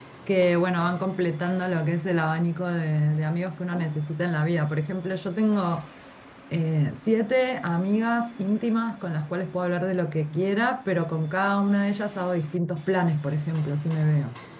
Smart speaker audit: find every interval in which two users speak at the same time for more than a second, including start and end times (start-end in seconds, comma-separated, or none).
none